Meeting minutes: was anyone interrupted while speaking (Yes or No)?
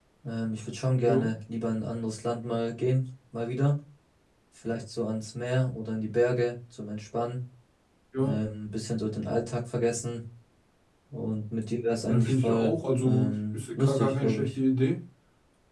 Yes